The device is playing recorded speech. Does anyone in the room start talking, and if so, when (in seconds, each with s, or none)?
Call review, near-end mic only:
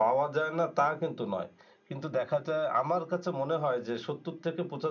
none